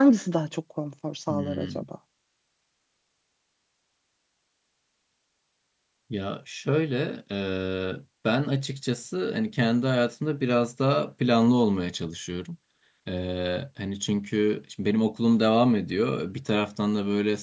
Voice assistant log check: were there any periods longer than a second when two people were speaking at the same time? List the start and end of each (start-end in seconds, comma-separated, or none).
none